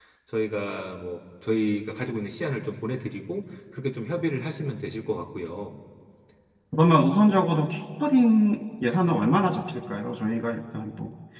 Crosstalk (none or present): none